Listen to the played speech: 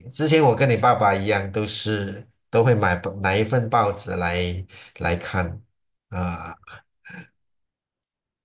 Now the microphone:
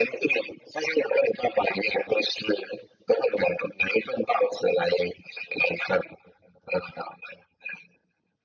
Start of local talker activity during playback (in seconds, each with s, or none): none